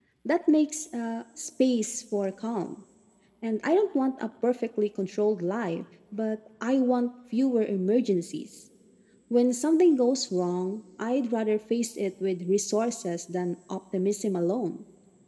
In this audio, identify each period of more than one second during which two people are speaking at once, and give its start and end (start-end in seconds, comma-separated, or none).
none